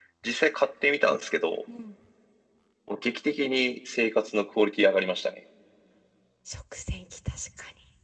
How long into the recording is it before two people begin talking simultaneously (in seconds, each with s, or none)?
none